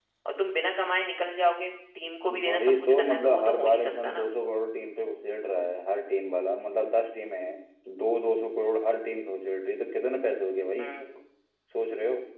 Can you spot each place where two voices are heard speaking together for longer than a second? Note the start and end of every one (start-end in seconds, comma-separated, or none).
2.4-4.3